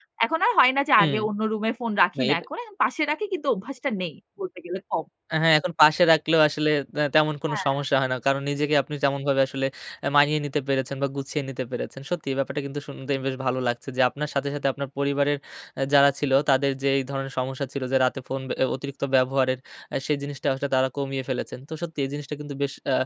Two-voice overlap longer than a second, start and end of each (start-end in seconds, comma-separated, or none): none